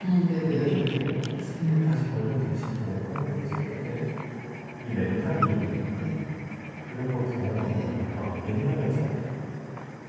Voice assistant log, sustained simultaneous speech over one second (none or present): none